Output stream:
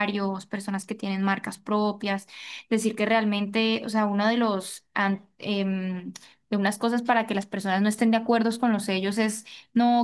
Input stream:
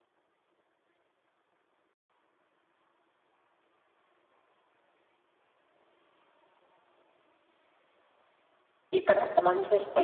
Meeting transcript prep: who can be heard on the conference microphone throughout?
user only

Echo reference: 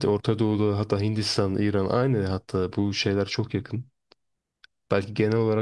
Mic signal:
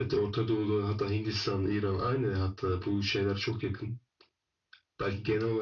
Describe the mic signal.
echo only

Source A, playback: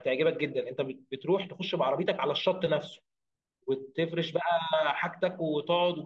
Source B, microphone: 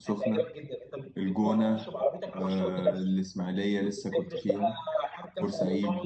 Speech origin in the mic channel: both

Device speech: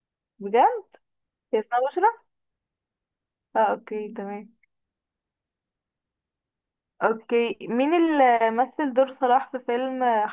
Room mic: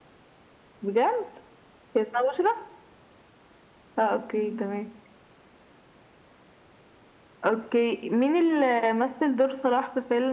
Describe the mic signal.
echo only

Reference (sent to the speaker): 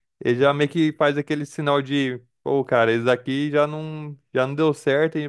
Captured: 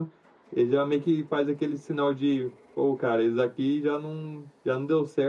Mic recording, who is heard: echo only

